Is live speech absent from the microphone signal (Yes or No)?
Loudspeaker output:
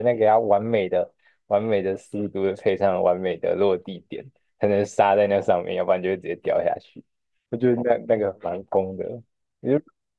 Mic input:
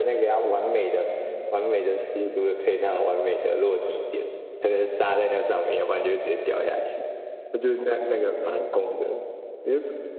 Yes